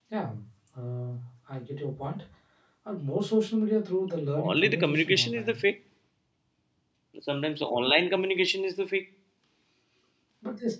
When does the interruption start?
4.4 s

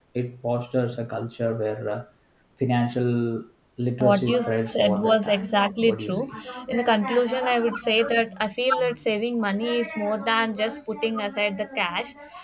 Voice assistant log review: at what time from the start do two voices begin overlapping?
4.0 s

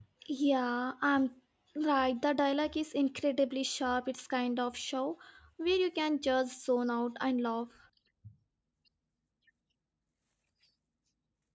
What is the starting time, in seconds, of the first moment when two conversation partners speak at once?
none

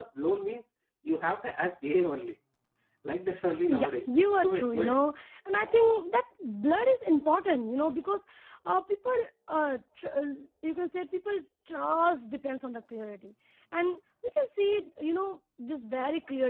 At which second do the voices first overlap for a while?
3.7 s

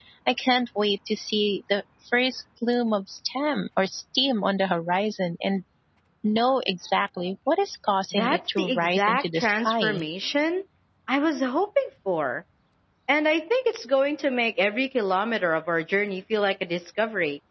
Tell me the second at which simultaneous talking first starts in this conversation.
8.1 s

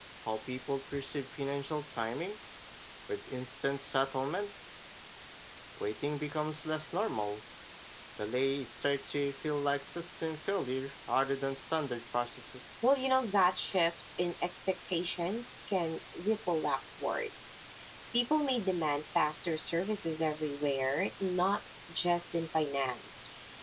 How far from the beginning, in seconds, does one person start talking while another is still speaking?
none

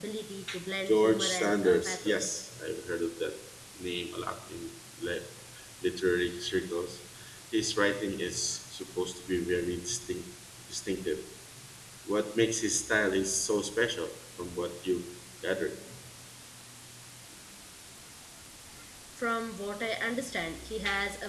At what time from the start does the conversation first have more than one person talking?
0.9 s

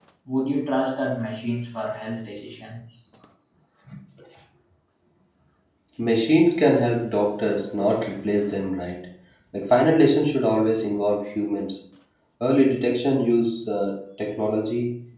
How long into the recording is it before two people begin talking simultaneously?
none

